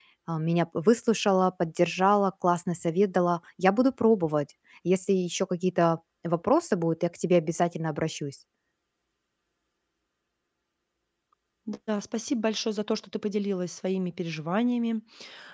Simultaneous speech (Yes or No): No